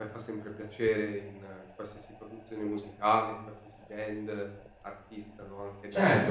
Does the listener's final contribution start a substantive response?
Yes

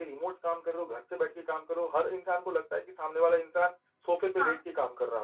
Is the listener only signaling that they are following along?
Yes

